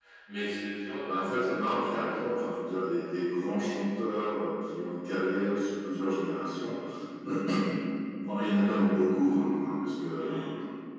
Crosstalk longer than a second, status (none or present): present